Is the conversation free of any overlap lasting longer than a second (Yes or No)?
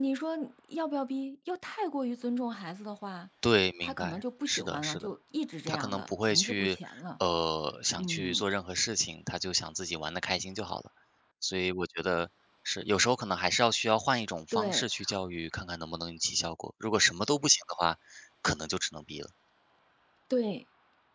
No